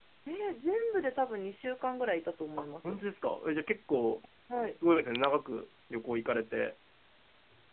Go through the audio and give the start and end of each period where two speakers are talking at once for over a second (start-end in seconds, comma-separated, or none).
none